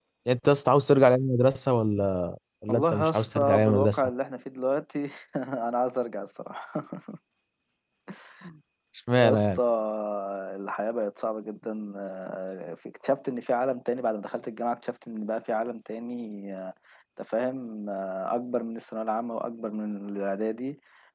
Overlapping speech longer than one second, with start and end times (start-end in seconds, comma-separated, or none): 2.7-4.1